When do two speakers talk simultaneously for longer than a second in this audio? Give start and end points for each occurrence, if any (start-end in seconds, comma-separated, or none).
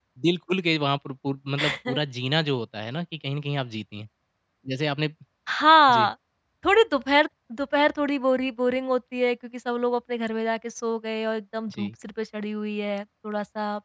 none